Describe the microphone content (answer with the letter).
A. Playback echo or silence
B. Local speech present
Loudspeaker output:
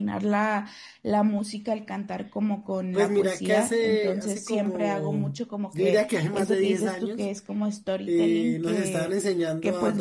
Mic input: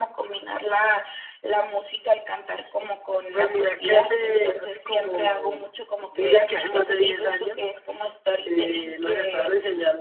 A